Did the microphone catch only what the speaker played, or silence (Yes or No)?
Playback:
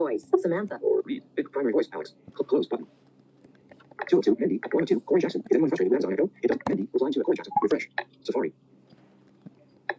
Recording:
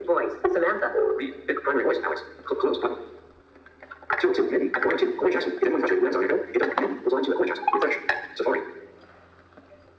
Yes